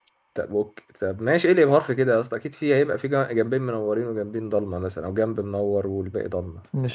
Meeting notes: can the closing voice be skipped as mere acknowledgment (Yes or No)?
No